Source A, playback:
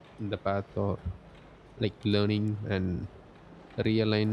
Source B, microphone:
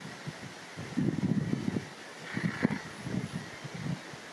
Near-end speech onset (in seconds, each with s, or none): none